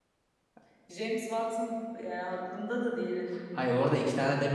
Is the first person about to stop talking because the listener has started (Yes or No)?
Yes